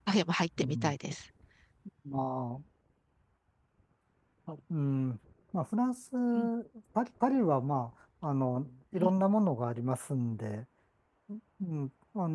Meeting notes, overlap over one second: none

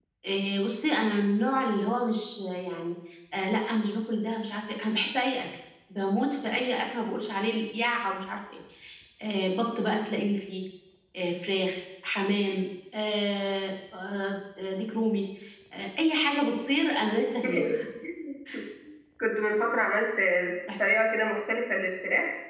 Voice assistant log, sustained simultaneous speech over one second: none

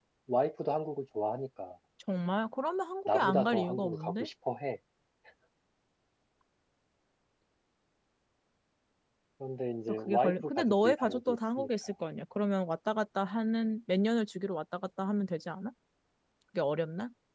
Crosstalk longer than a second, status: present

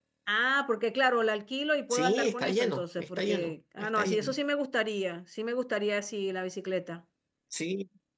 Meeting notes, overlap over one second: present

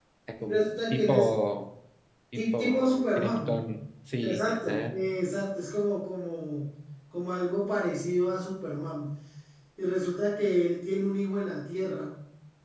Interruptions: present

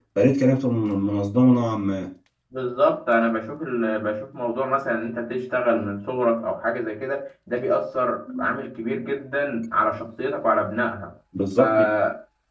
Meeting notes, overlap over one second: none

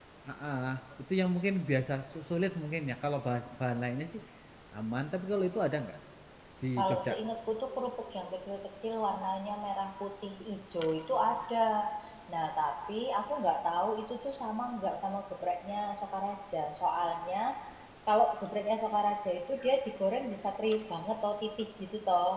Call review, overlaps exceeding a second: none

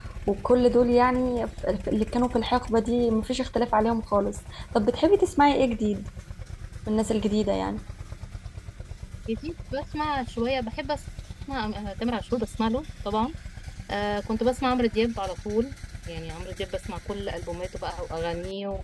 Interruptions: none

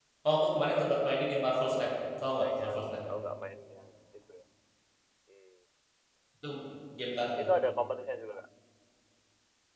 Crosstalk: present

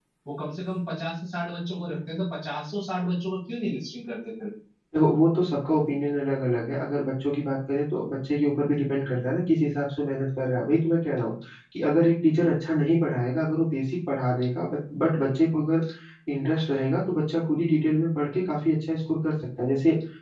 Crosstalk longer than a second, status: none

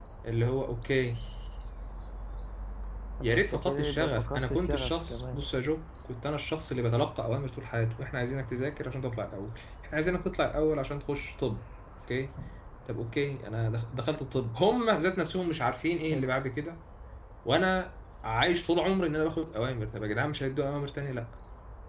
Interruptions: present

